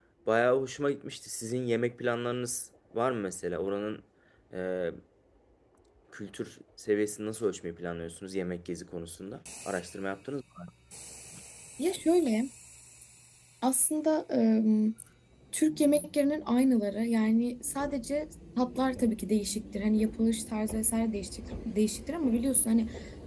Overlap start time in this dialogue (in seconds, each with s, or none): none